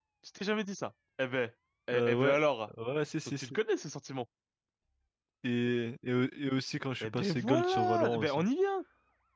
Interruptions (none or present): present